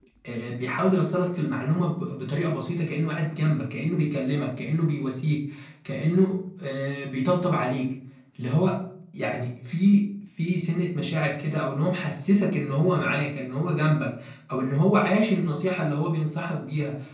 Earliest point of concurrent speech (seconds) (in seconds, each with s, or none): none